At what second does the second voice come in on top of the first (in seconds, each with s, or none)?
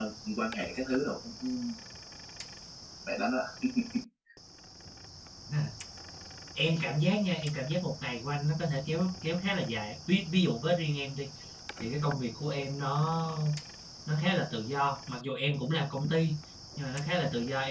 none